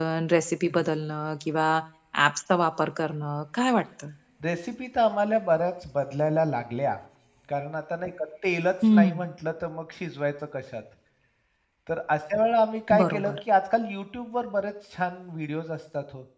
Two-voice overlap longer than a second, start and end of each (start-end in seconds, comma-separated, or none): none